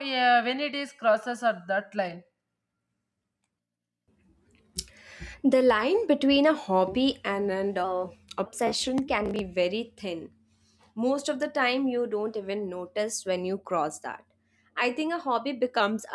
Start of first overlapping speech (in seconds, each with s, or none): none